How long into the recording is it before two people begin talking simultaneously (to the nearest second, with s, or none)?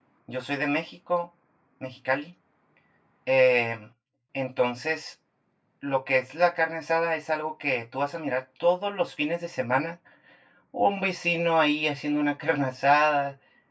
none